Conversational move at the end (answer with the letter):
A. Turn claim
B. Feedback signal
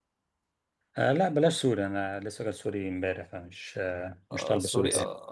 A